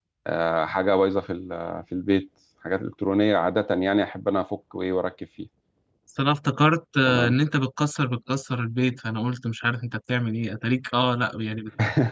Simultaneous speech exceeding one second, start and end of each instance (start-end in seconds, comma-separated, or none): none